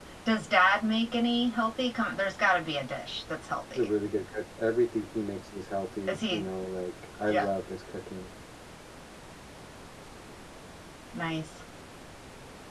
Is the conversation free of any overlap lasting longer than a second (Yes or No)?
Yes